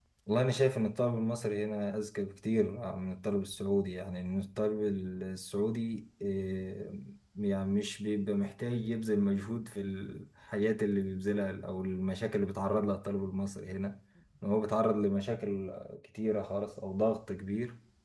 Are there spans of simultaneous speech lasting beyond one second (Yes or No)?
No